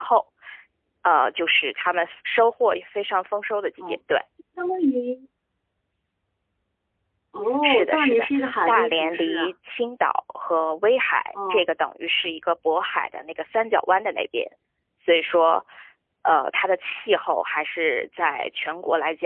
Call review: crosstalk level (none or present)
present